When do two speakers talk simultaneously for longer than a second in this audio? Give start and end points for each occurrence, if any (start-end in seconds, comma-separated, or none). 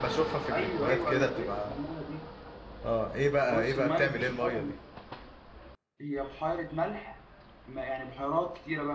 0.5-1.8, 3.4-4.7